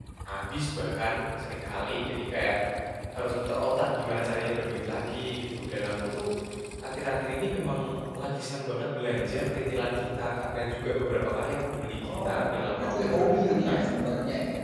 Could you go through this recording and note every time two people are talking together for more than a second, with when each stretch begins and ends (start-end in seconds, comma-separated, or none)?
12.2-13.8